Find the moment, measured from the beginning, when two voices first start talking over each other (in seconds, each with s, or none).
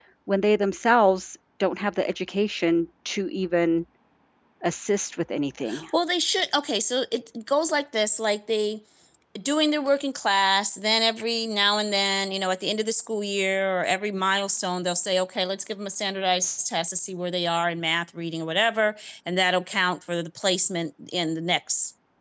none